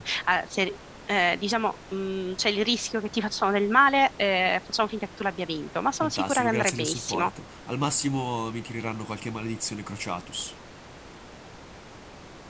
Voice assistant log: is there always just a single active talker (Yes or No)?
No